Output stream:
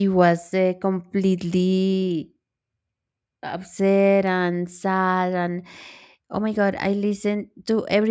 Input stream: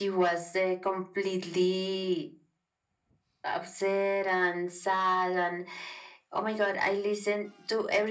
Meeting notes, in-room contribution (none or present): none